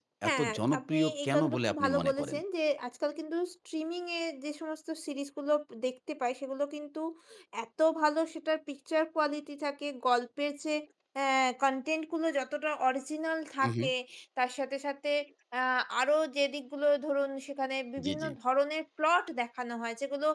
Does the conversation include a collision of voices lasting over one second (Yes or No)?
Yes